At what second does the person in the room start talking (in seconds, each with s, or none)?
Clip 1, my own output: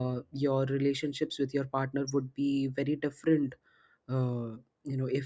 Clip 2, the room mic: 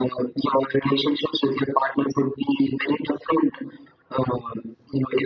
none